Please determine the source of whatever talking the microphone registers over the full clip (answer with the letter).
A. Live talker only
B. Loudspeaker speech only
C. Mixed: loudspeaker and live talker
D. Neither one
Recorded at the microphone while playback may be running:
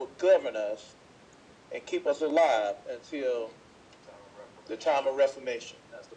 B